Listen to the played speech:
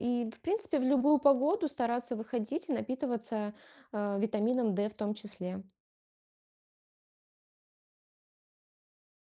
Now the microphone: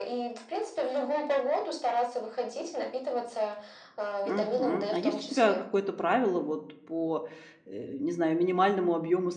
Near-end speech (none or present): present